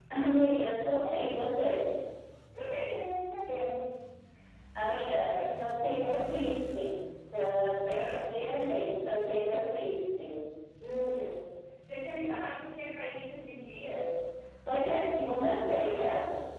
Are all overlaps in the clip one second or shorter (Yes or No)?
No